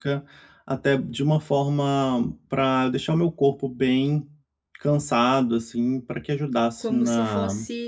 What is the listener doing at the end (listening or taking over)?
taking over